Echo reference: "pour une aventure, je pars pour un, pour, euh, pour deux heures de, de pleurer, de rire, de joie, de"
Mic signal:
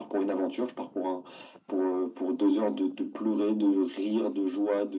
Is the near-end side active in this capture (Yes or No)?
No